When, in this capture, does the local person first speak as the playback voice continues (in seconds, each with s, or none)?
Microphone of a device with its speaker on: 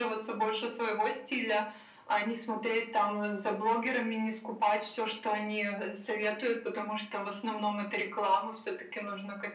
none